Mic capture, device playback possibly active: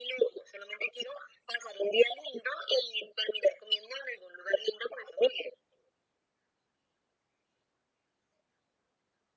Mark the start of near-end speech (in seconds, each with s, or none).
none